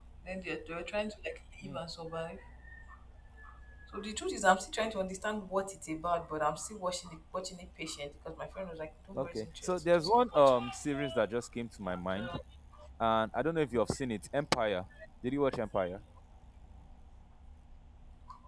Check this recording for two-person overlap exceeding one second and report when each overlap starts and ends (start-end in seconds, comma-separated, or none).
9.2-10.6